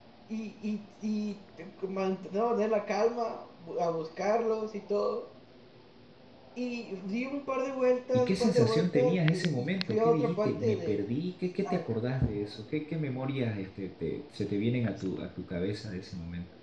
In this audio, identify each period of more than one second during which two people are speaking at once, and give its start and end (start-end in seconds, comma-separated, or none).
8.1-11.0